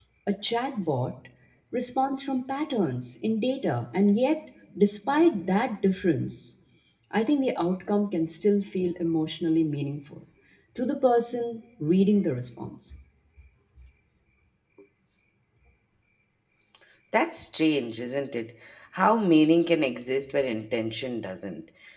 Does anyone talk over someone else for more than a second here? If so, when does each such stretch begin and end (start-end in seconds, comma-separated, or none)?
none